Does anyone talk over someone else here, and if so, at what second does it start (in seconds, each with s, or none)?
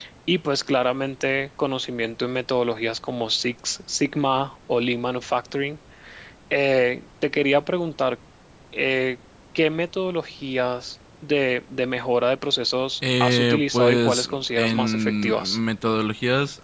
13.0 s